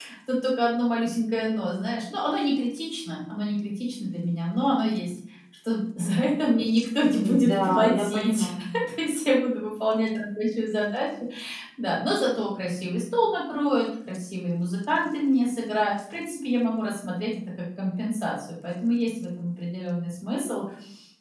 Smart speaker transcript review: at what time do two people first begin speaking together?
7 s

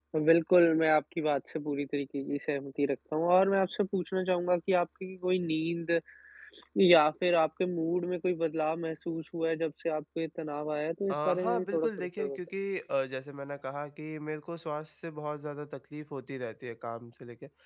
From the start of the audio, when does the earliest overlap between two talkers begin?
11 s

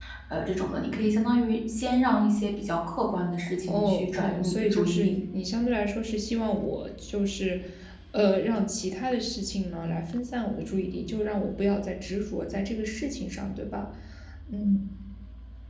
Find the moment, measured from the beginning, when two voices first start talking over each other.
3 s

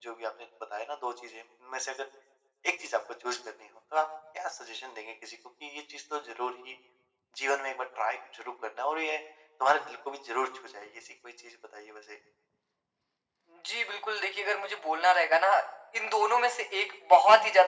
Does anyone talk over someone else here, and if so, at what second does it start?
none

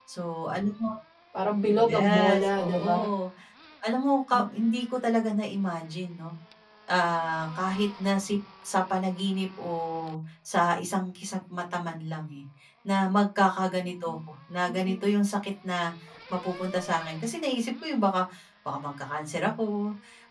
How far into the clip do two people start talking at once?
2 s

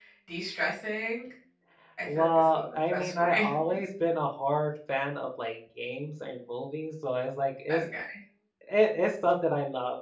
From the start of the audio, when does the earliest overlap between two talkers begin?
2 s

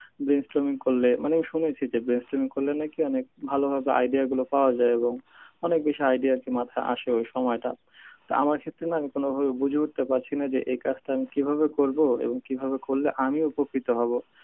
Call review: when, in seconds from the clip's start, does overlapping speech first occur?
none

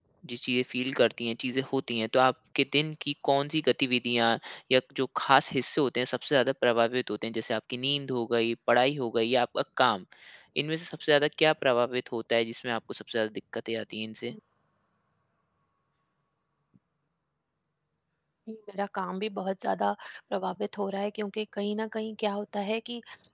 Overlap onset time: none

